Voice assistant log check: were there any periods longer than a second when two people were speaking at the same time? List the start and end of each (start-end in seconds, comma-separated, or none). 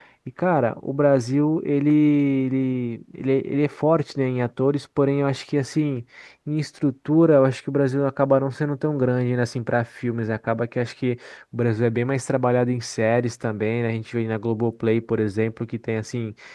none